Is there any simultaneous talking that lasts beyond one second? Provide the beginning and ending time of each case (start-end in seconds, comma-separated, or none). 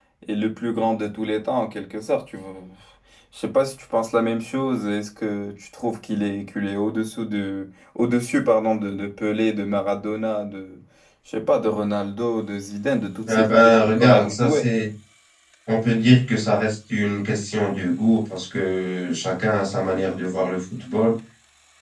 13.2-14.6